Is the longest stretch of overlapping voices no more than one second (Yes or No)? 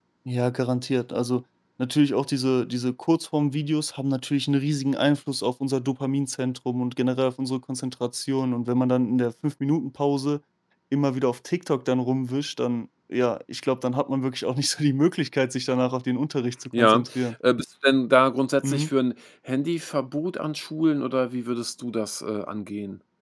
Yes